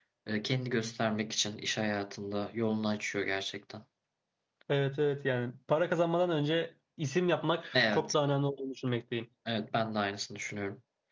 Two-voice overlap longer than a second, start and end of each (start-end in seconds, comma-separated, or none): none